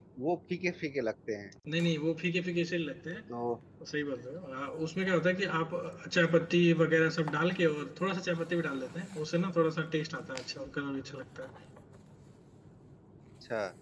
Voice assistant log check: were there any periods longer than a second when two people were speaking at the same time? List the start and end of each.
none

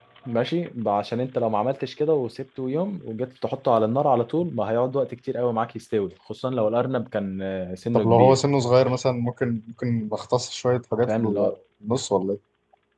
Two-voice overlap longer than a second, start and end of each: none

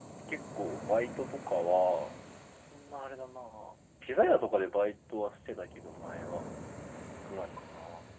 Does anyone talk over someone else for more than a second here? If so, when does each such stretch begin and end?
none

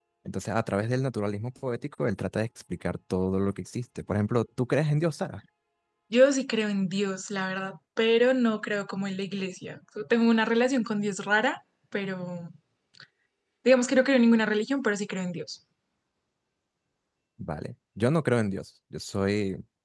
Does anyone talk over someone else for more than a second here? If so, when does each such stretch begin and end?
none

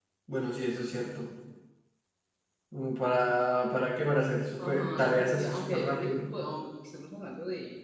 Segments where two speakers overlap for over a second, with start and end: 4.7-6.3

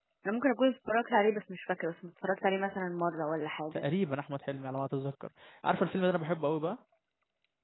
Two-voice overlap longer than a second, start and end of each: none

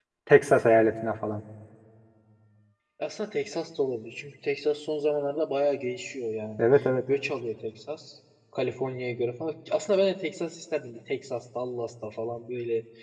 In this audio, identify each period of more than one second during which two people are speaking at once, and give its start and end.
none

